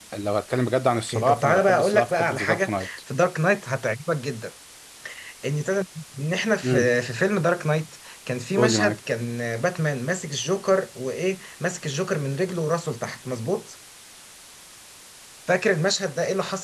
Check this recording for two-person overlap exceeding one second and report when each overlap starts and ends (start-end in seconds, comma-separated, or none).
1.1-2.9